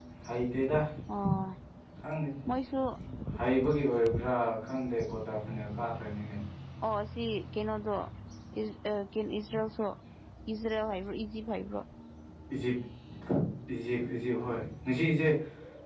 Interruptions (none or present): none